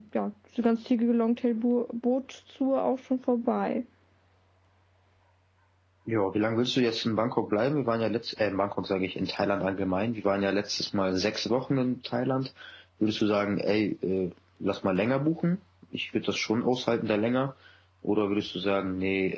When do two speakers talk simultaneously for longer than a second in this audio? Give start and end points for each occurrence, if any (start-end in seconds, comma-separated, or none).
none